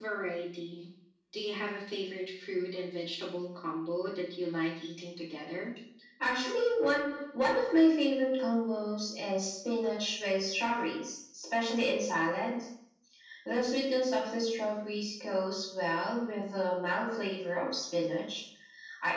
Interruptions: none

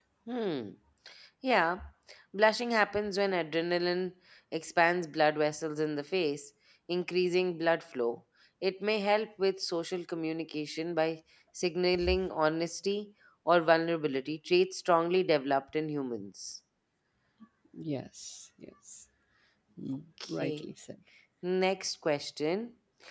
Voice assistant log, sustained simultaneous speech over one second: none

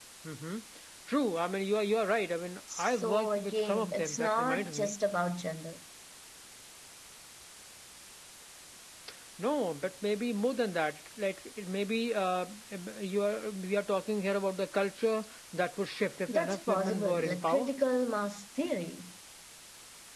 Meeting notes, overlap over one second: present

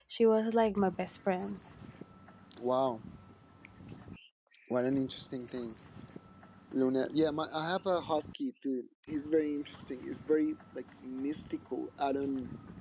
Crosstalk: none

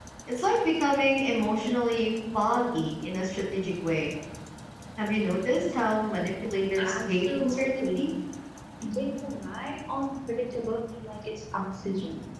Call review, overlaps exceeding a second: present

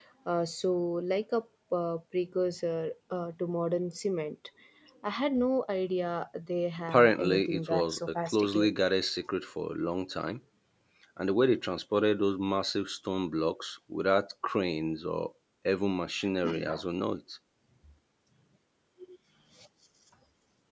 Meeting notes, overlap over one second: present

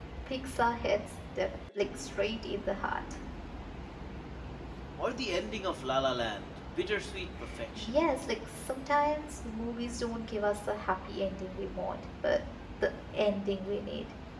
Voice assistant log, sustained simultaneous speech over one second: none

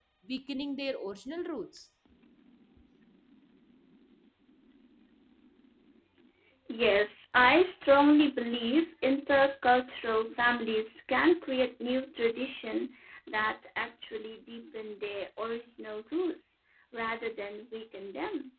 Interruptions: none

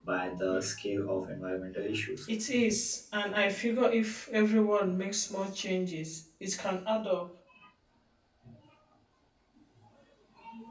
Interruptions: none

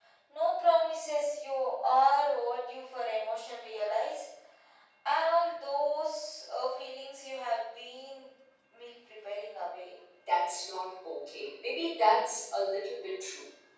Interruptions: none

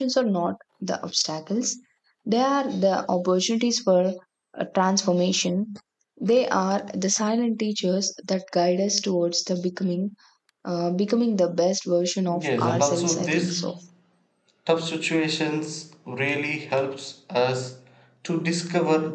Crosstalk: present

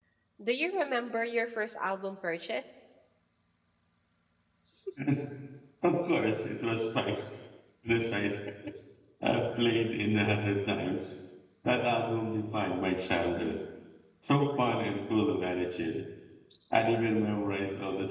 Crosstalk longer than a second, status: none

